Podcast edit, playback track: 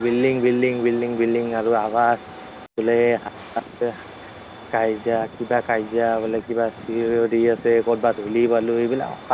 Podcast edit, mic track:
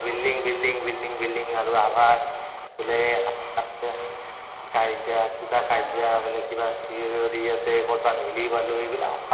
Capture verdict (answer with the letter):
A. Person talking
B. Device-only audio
A